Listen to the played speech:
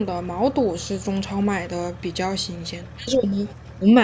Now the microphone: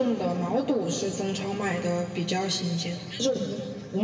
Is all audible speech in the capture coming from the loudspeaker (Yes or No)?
Yes